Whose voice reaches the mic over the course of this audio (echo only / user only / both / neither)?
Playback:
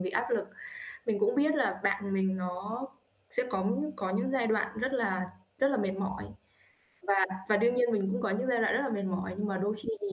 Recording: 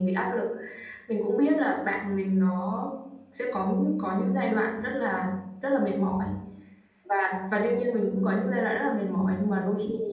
echo only